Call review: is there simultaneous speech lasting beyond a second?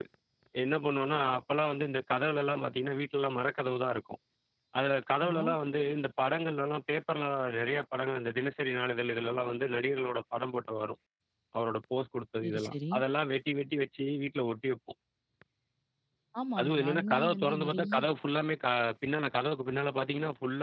Yes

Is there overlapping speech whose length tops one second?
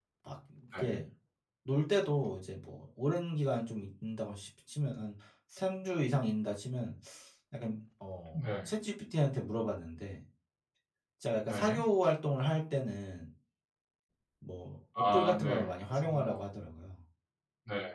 Yes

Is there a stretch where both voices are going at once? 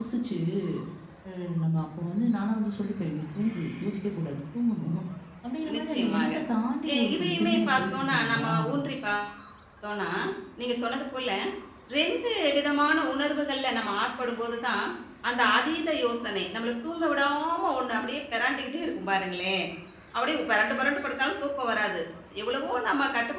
Yes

